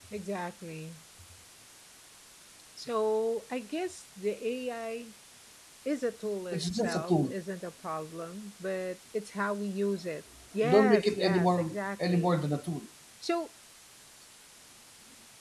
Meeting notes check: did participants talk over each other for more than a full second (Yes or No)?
Yes